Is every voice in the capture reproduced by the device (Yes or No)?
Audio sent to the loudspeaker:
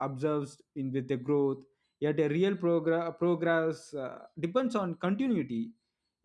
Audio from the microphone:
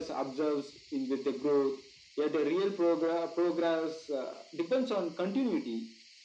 Yes